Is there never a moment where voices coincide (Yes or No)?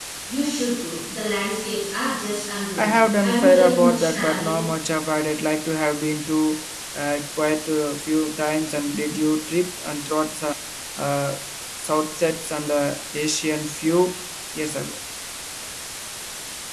No